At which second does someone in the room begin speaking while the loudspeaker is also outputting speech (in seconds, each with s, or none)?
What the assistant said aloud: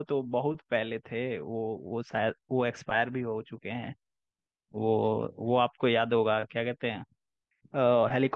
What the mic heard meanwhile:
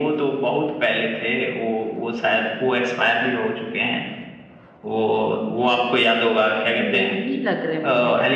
6.6 s